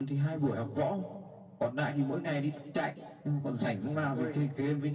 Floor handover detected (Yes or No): No